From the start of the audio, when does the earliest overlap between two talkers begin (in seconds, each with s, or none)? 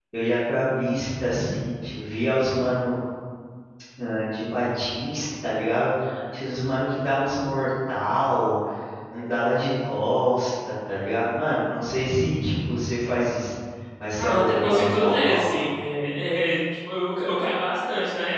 14.2 s